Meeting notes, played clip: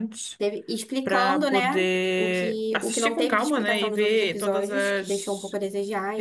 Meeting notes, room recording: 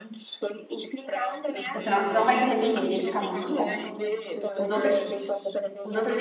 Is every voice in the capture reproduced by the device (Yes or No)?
No